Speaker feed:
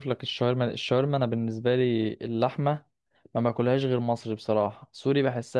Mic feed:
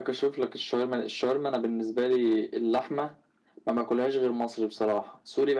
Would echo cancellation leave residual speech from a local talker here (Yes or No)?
No